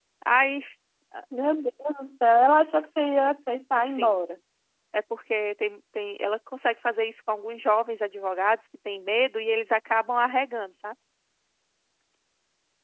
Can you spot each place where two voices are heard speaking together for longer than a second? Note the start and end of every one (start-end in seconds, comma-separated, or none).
none